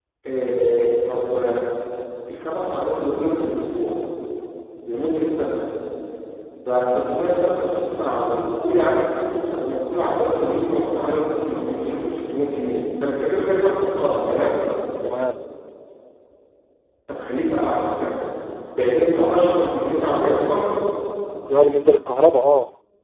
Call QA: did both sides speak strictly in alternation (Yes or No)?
Yes